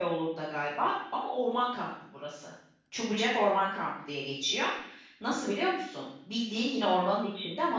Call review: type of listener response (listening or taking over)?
listening